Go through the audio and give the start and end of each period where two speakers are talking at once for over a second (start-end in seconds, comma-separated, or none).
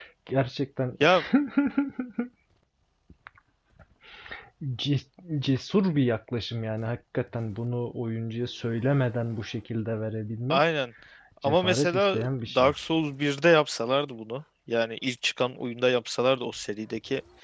11.4-12.7